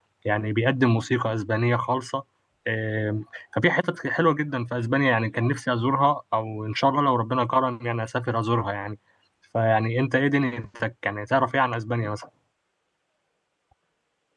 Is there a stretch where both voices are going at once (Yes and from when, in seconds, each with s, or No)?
No